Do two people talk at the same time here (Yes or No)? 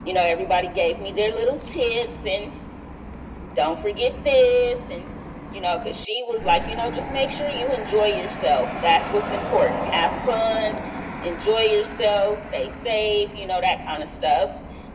No